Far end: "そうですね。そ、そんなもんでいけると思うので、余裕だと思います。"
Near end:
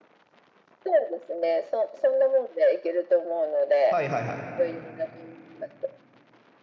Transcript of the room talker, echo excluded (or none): はいはいはい。